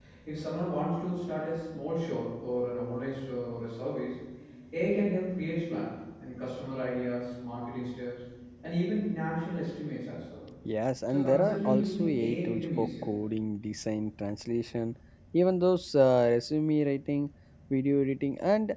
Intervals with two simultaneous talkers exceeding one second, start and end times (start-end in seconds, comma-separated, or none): 11.1-13.1